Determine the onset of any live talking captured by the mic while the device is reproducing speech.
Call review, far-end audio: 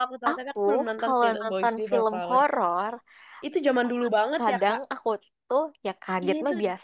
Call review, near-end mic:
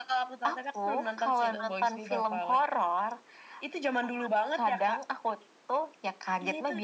none

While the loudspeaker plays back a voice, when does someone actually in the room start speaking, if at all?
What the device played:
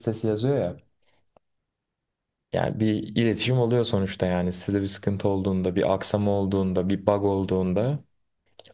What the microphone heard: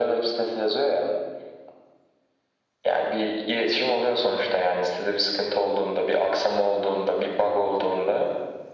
none

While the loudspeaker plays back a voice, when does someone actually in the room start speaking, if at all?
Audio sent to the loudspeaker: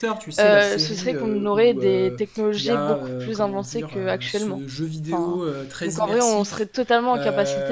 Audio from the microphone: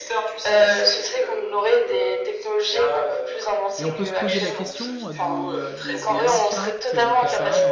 4 s

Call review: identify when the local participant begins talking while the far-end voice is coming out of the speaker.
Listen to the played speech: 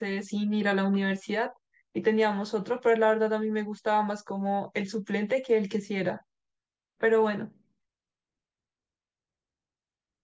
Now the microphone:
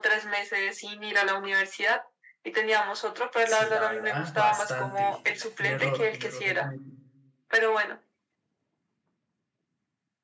3 s

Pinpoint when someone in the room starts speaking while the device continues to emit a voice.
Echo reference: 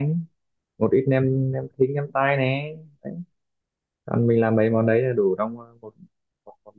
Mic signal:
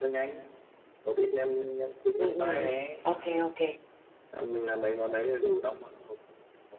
2 s

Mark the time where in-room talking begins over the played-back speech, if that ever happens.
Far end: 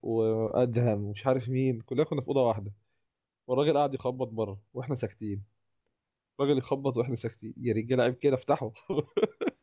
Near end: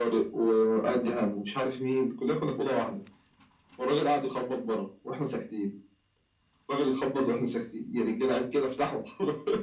none

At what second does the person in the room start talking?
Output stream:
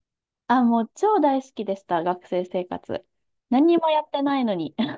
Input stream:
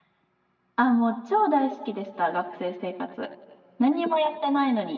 none

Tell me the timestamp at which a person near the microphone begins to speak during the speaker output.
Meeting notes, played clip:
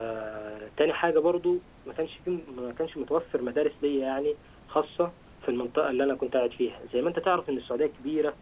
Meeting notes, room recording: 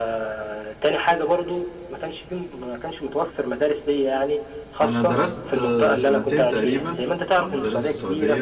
5 s

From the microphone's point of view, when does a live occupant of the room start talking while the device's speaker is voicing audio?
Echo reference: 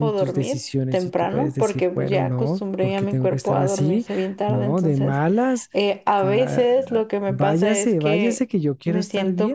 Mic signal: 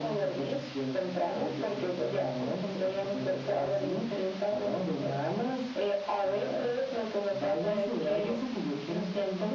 none

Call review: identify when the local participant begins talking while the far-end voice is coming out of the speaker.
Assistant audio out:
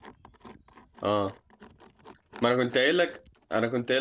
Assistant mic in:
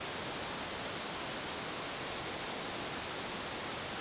none

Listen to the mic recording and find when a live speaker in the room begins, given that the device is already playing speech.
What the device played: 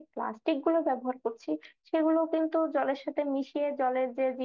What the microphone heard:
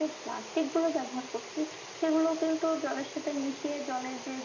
none

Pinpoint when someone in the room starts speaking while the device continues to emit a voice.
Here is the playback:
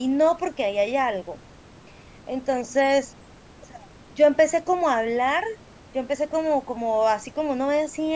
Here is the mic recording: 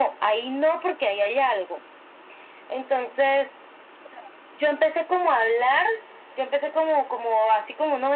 none

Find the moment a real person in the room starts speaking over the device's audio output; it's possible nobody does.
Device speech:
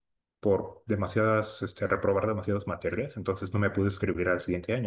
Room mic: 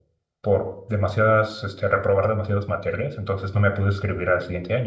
none

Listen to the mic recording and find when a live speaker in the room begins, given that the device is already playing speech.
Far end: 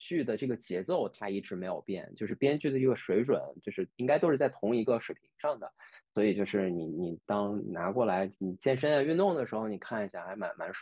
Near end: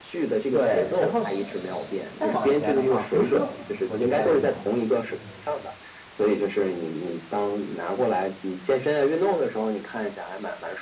1 s

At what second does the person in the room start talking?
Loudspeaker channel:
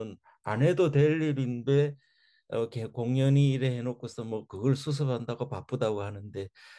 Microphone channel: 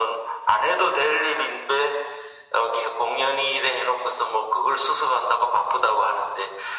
none

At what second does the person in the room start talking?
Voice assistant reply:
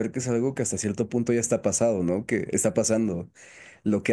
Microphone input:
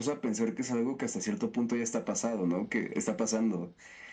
none

